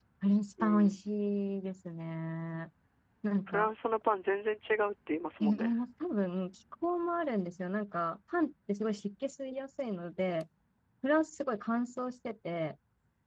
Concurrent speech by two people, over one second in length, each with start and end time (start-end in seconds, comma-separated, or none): none